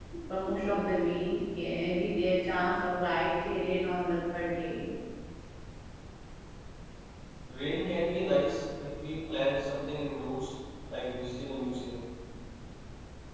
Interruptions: none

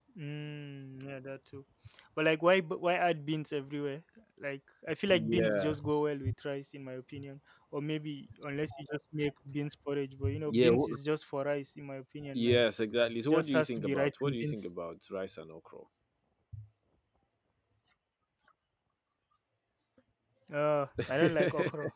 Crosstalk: present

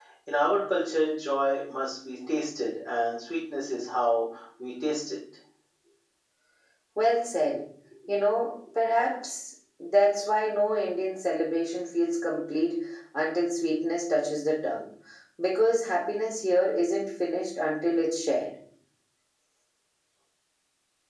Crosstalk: none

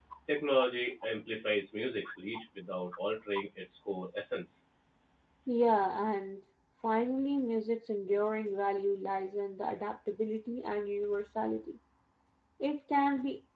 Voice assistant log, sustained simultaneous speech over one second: none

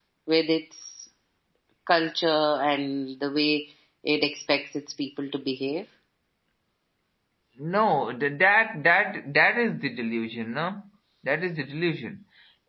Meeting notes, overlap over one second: none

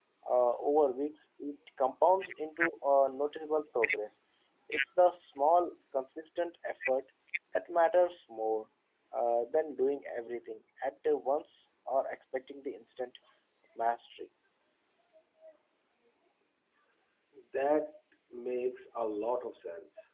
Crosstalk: none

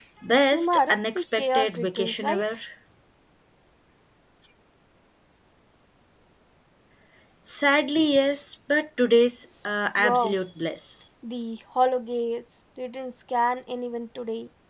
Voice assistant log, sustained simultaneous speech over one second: present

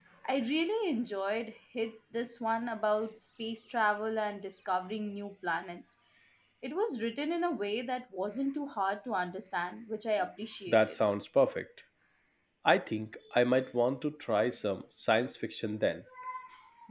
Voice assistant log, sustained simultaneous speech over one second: none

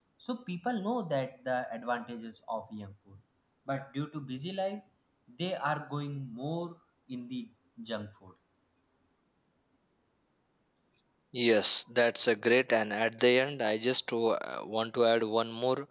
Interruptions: none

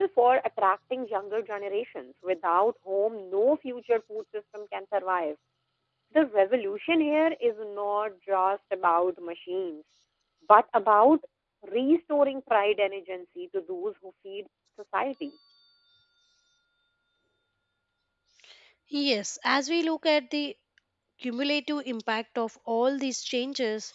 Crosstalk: none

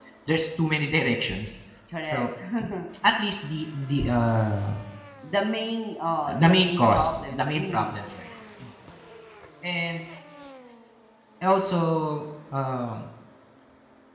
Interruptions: present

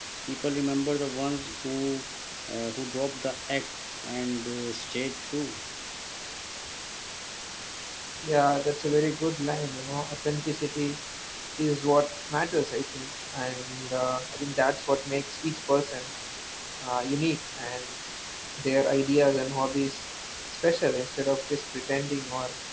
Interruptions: none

